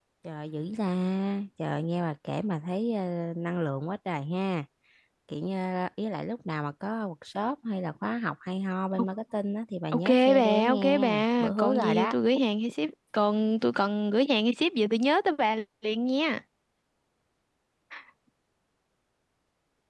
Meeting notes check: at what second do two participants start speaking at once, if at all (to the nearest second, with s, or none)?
10 s